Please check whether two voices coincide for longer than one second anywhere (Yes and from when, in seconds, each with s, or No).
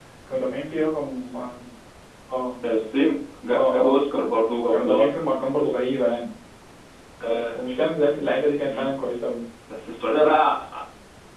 No